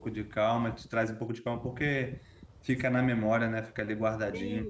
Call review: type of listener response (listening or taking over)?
taking over